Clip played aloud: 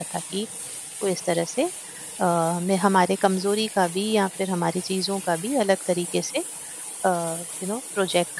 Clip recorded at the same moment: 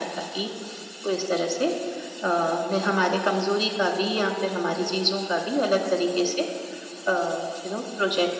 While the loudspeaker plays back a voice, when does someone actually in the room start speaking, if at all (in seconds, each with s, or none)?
none